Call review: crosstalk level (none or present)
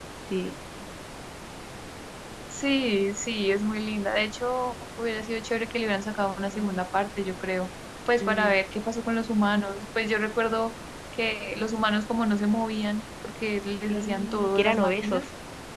present